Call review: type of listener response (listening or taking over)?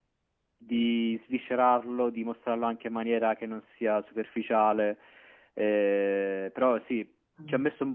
listening